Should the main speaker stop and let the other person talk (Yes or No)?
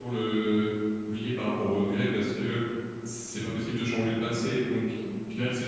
No